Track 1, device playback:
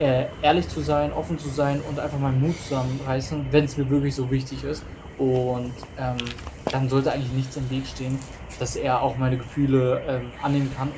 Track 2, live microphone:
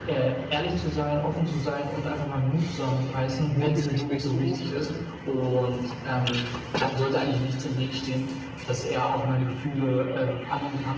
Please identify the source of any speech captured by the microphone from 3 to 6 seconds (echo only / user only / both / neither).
both